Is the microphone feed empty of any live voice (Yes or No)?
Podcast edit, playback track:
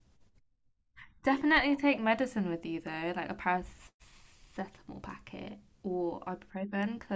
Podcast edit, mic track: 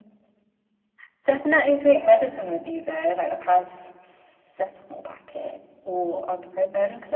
Yes